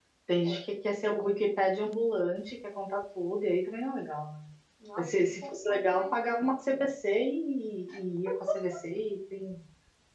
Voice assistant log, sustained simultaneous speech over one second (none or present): present